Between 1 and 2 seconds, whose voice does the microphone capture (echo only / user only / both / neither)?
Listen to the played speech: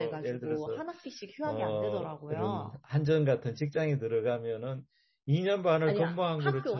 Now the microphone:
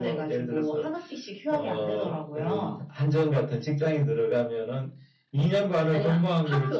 echo only